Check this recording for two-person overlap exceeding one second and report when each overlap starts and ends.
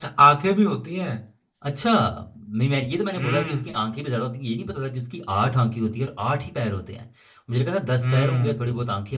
none

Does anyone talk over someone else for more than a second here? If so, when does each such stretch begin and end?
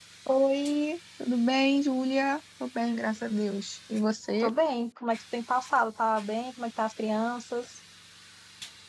none

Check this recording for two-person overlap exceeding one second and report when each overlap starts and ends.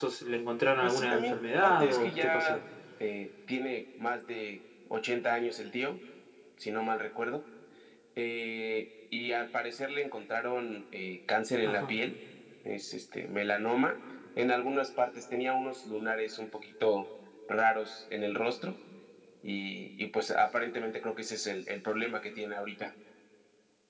0.8-2.6

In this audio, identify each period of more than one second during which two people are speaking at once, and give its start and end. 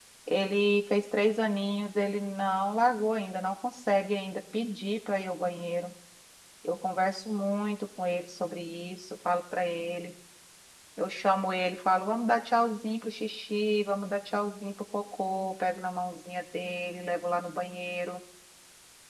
none

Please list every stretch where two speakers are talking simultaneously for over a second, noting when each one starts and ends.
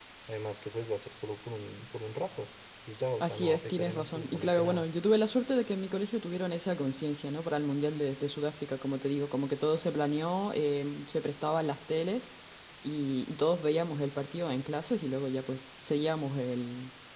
3.2-4.8

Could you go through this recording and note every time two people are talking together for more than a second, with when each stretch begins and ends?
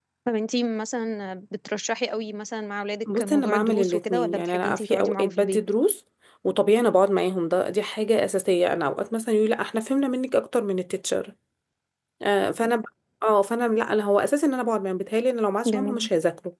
3.2-5.6

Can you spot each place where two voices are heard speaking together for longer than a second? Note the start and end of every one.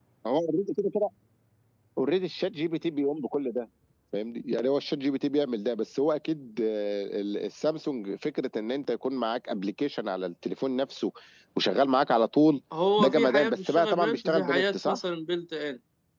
13.0-15.0

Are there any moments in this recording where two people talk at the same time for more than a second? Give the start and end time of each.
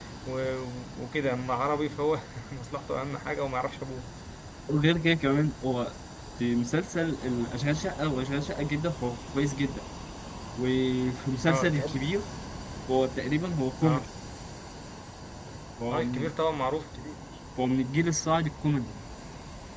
none

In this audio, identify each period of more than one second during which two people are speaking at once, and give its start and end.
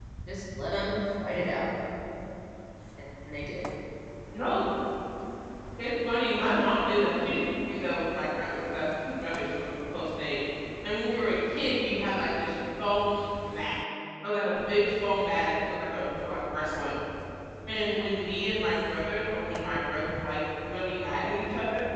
none

